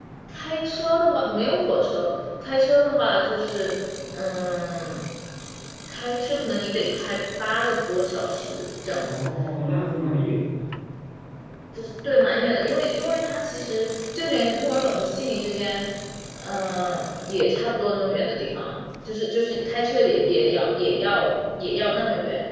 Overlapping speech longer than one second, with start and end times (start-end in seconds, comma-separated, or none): none